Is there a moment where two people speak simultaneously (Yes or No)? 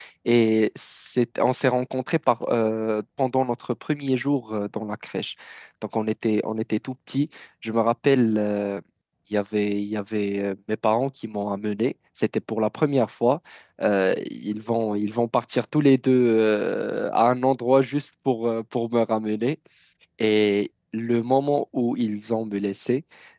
No